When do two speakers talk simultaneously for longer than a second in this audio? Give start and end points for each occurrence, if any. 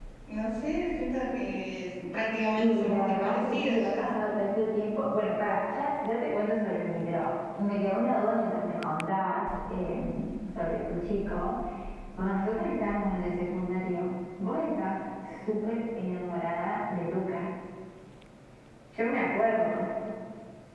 2.6-4.2

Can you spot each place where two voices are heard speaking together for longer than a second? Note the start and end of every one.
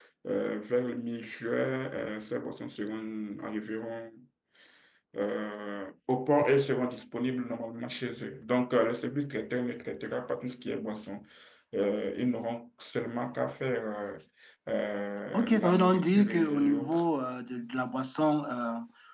15.3-17.0

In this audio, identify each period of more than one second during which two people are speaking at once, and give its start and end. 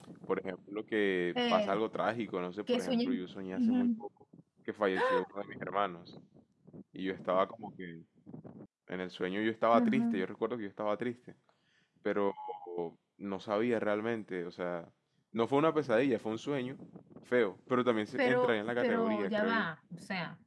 18.2-19.7

